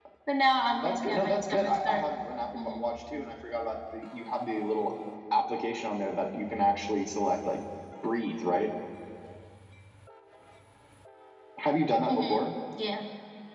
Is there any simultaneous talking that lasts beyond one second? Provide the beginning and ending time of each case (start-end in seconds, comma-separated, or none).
0.8-2.0